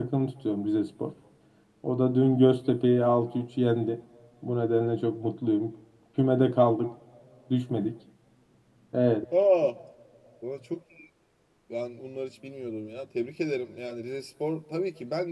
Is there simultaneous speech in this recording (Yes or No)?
No